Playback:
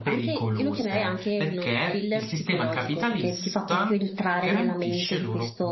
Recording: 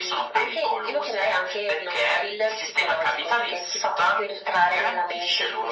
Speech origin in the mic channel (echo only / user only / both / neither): echo only